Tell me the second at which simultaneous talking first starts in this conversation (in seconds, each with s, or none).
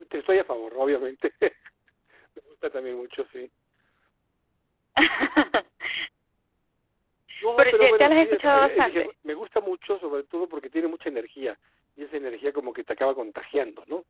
7.6 s